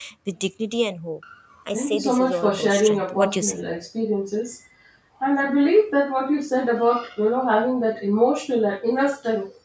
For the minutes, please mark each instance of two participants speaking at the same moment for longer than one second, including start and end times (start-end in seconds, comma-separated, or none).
1.7-3.5